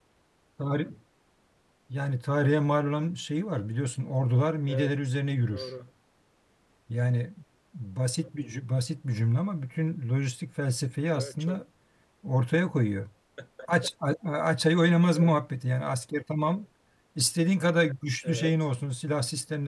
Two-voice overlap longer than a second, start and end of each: none

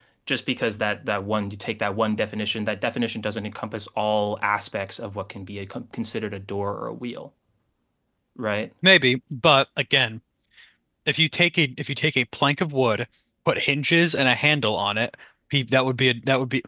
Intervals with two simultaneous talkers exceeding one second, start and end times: none

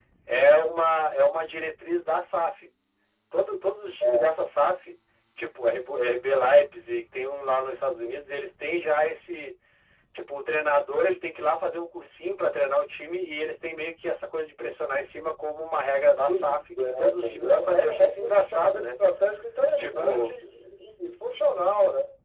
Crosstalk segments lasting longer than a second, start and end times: 16.3-18.9

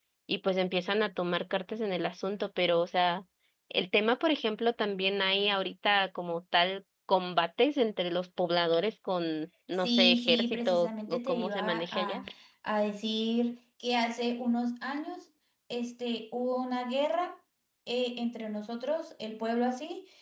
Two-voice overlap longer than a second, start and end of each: 9.8-12.2

